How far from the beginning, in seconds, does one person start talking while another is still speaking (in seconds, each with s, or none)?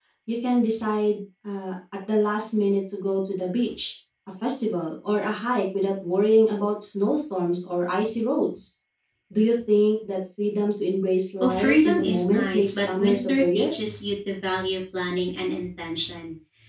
11.4 s